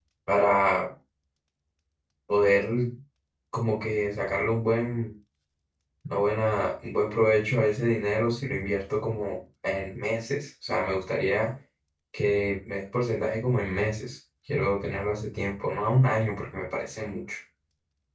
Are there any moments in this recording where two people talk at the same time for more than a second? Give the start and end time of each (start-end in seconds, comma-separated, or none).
none